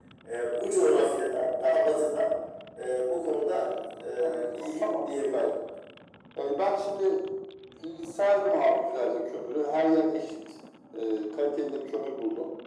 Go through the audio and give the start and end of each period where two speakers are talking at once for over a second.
4.2-5.5

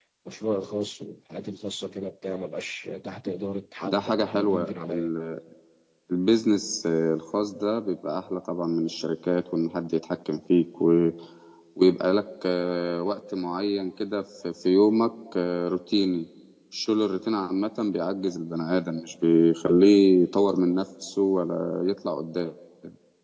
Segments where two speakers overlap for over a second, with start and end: 3.8-5.1

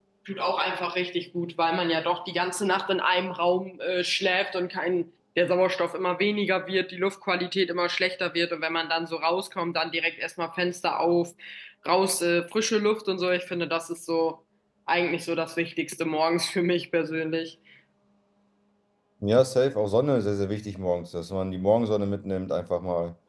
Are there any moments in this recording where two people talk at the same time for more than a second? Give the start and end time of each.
none

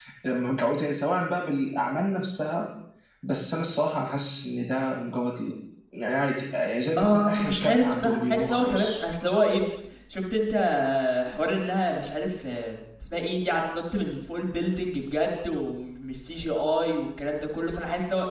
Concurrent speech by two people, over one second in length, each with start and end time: 7.0-8.9

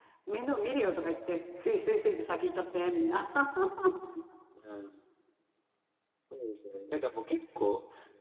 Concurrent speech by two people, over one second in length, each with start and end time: none

